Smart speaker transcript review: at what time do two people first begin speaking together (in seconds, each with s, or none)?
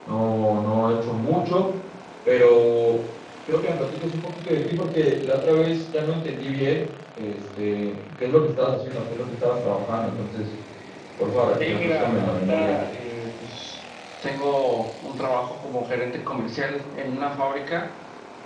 11.6 s